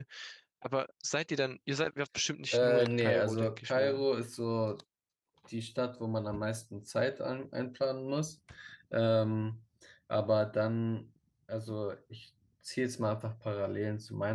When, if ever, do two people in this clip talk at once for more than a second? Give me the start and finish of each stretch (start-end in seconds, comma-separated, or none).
2.5-4.0